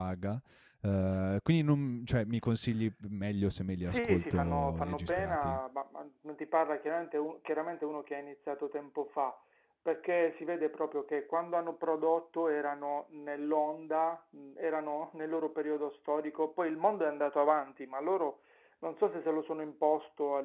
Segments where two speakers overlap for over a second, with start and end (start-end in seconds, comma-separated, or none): 3.9-5.6